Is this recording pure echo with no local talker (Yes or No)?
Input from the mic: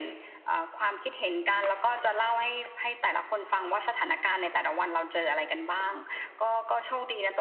Yes